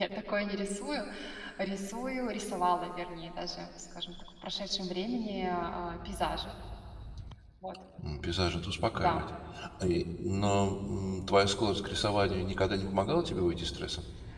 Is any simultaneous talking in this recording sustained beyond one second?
No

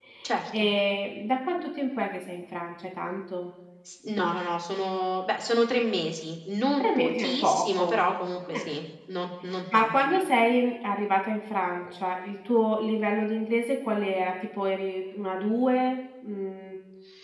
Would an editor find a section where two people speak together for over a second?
Yes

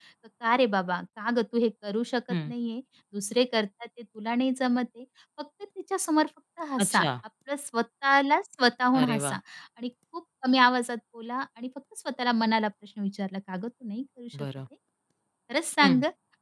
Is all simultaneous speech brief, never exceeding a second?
Yes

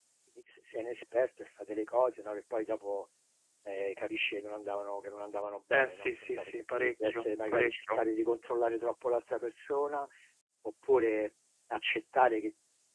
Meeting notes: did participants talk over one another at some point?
Yes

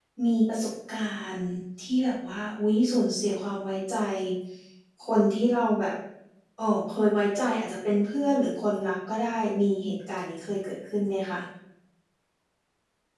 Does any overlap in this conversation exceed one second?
No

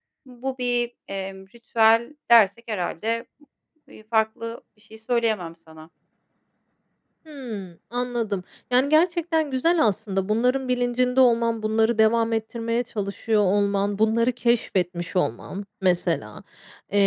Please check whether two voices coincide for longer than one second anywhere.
No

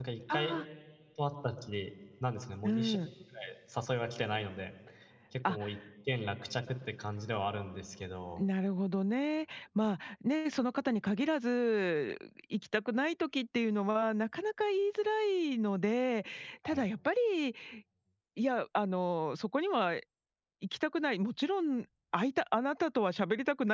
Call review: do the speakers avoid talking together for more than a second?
Yes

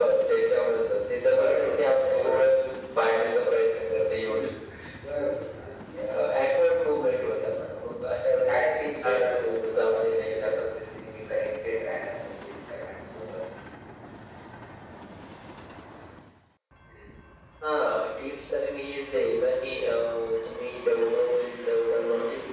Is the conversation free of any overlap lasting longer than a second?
No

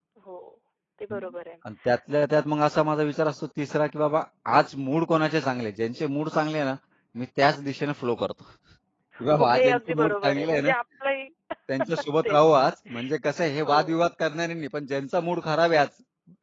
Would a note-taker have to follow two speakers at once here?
Yes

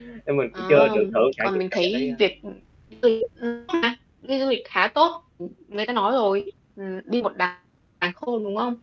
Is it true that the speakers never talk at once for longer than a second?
No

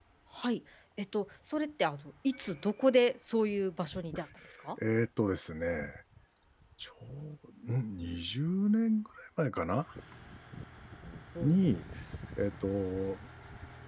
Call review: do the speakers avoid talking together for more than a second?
Yes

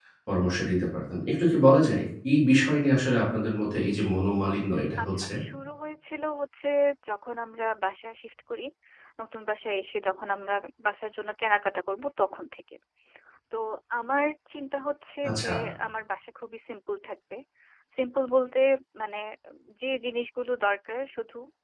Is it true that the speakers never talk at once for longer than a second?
Yes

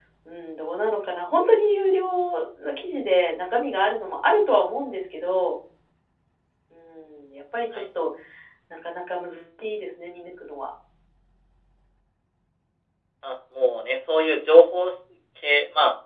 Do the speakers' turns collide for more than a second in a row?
No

